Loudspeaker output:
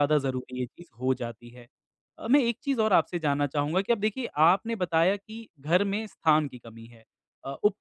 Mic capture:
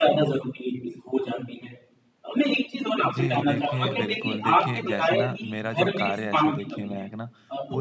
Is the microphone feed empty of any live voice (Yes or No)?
No